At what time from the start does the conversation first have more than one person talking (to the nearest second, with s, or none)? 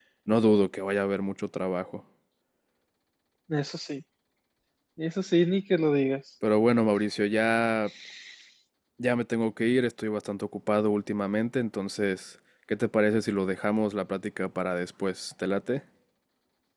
none